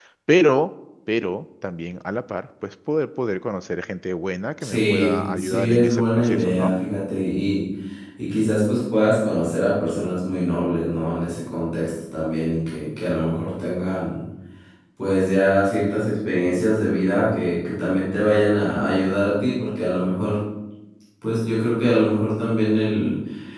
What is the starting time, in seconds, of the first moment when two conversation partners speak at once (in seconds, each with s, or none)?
4.6 s